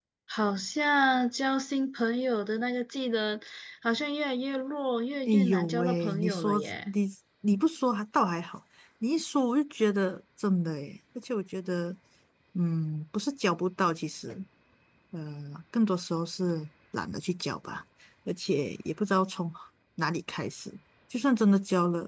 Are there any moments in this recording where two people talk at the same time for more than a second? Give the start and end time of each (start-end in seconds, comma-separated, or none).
5.2-6.9